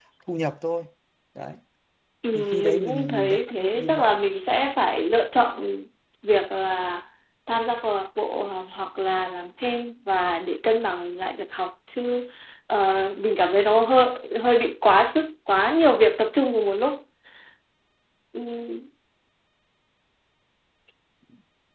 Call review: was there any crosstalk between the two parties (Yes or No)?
Yes